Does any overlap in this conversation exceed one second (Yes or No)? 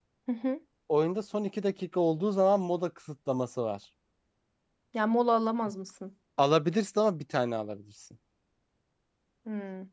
No